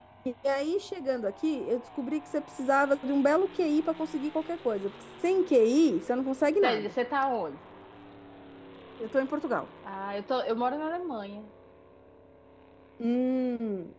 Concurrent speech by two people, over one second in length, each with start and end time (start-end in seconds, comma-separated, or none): none